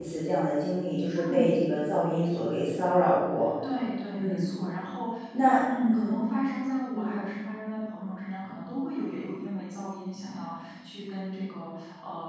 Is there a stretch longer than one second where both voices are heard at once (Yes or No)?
No